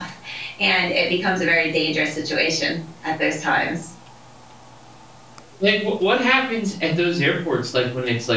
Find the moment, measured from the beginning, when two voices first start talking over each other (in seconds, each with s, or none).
none